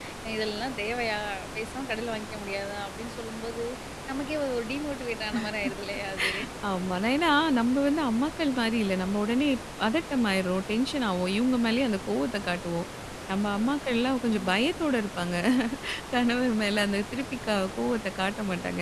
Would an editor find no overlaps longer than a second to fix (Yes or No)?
Yes